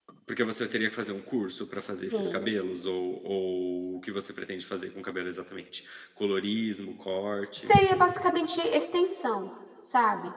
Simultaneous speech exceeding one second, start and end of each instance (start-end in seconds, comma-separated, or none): none